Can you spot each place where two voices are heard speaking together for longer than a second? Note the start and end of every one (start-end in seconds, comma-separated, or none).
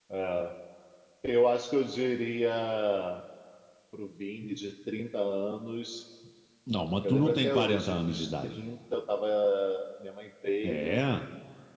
7.0-8.5